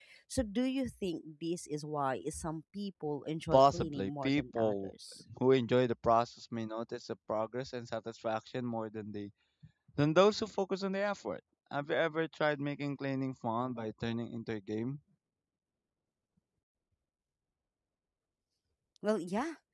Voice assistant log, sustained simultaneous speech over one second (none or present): present